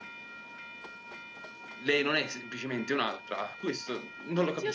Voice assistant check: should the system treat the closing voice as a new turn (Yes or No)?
Yes